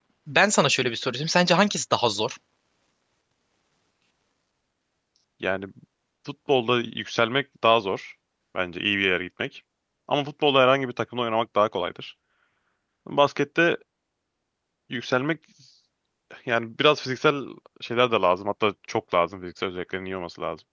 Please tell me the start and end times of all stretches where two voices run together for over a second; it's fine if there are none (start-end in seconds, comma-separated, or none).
none